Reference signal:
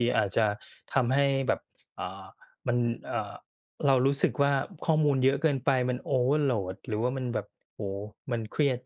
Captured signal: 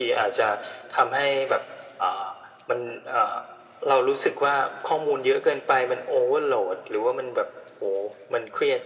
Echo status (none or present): present